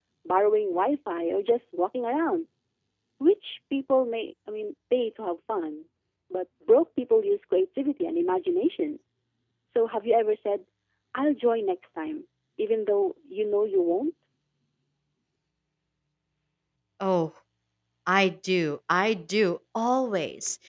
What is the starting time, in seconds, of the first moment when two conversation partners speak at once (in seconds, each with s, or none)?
none